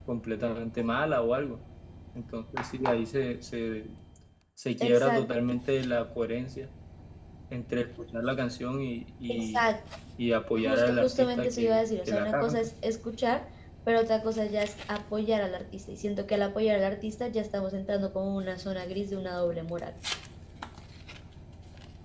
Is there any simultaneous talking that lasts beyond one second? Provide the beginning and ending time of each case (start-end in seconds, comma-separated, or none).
10.6-12.7